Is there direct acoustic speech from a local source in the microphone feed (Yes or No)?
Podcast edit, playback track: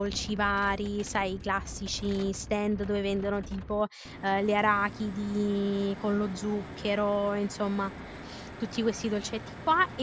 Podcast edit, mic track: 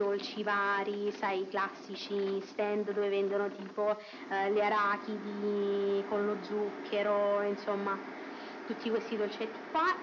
No